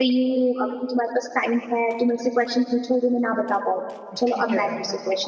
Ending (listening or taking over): taking over